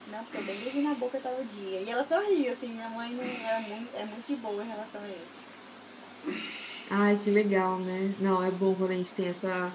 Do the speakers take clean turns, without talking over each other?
Yes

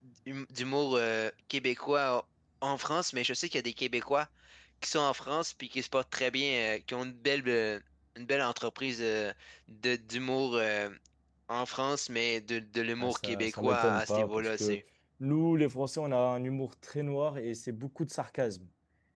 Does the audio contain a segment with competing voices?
Yes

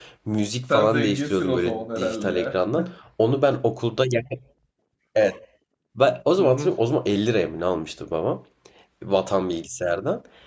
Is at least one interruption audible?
Yes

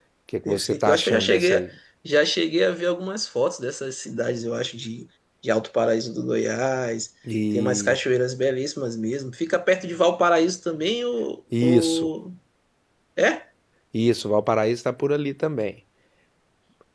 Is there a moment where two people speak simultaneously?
Yes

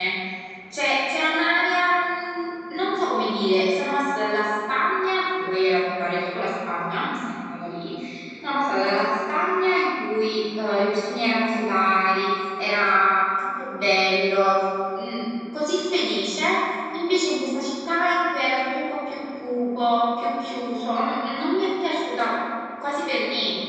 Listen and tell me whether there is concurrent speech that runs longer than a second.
No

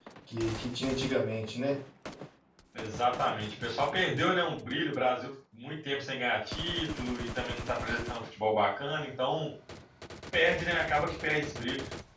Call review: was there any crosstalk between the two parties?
No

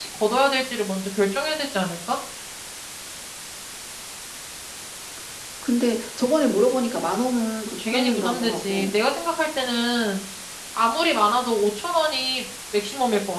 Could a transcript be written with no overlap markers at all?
No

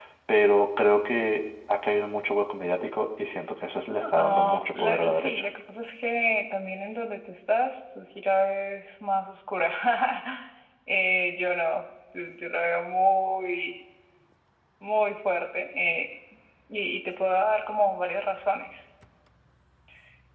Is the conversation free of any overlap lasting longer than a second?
No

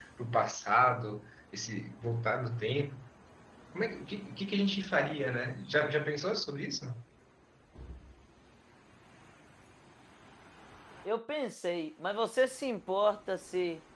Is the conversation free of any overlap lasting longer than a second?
Yes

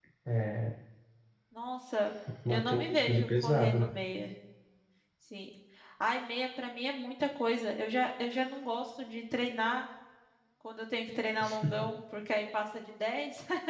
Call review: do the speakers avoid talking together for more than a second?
No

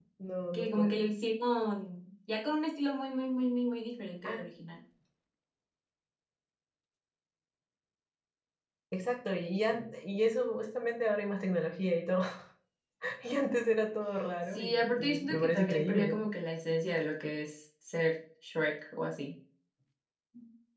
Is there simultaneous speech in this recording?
Yes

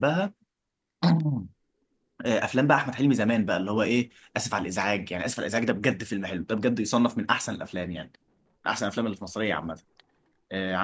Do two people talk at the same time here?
No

